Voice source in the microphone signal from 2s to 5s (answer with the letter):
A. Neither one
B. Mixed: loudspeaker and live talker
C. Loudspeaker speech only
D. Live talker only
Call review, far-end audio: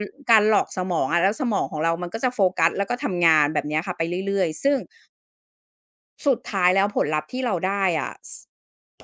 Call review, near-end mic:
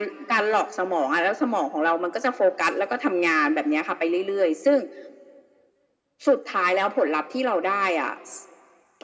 C